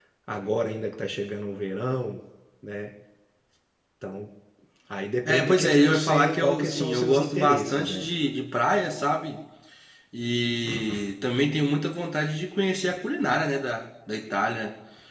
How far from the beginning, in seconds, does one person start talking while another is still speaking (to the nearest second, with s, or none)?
5 s